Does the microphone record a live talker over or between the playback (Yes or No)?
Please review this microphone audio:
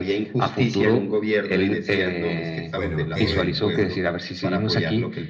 Yes